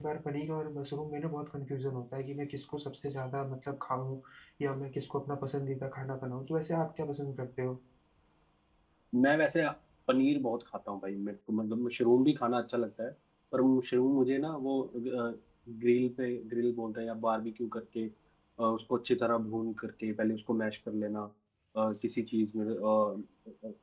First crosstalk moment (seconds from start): none

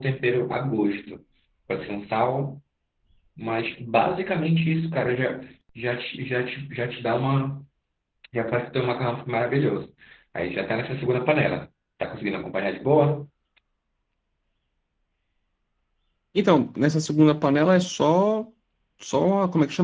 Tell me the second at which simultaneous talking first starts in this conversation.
none

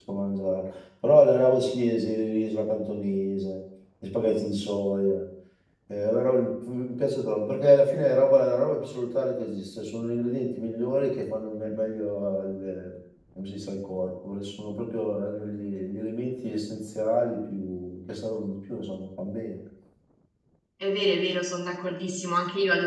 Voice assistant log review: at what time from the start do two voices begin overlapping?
none

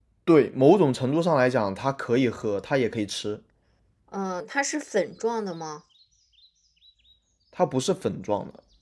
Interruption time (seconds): none

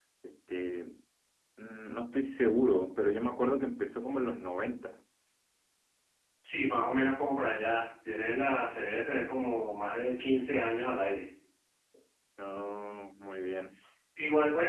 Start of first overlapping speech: none

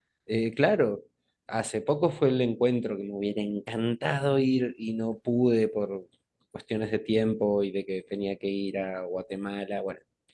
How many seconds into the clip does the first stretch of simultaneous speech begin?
none

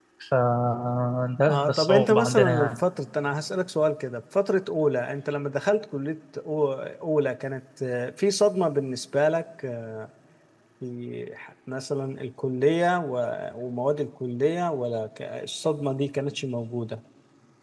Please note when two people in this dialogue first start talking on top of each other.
1.5 s

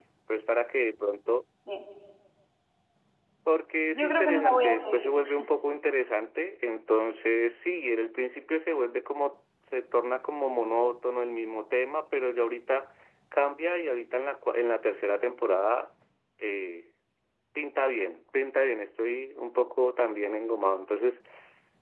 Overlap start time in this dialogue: 3.9 s

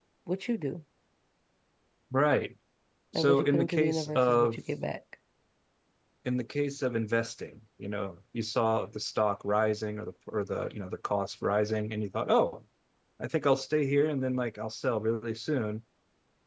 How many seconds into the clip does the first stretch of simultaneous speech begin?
3.1 s

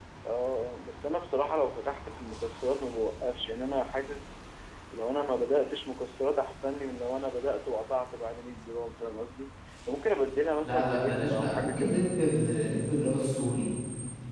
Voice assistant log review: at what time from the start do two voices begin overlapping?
10.6 s

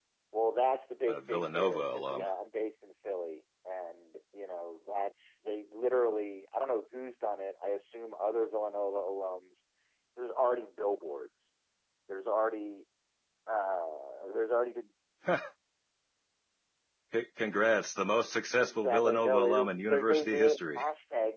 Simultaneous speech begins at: 1.1 s

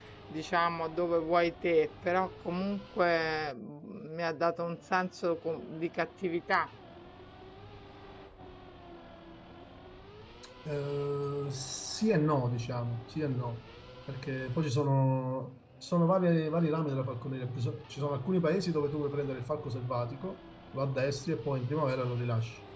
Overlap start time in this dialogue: none

